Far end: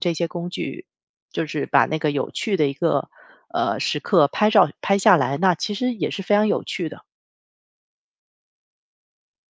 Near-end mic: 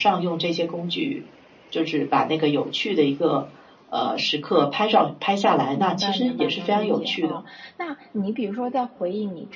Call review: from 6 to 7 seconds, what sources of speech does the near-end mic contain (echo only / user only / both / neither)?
both